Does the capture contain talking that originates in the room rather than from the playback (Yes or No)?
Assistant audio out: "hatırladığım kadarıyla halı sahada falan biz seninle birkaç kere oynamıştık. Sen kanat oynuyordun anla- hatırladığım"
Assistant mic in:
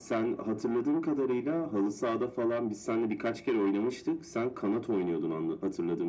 No